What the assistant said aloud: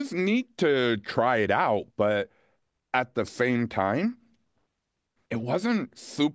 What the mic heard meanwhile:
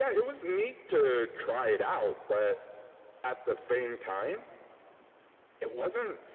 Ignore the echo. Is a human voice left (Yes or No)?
No